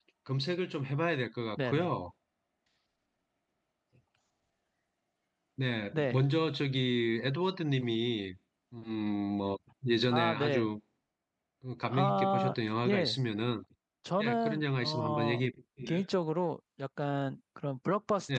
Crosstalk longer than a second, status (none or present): present